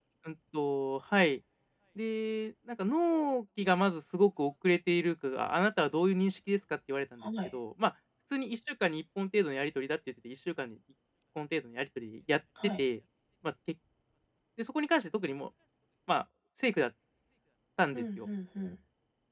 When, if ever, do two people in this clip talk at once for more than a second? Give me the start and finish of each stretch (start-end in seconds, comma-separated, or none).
none